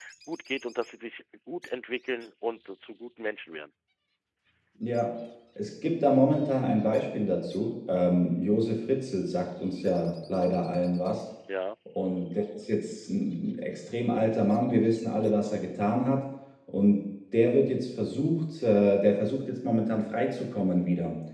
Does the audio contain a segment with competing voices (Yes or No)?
No